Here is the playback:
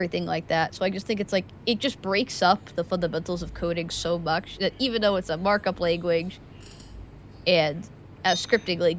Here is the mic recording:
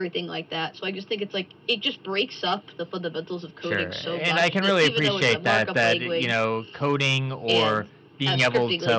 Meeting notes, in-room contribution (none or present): present